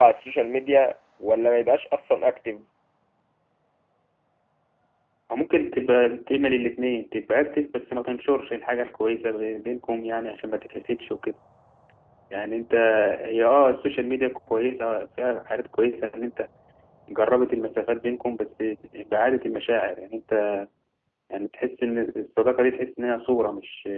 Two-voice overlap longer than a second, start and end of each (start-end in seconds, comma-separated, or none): none